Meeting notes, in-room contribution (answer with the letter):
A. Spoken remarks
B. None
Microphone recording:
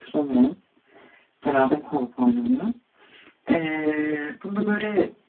B